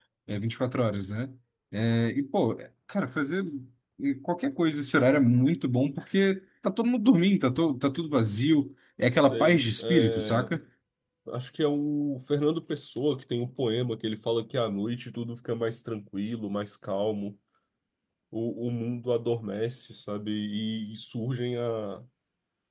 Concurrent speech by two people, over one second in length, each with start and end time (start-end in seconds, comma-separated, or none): 9.1-10.5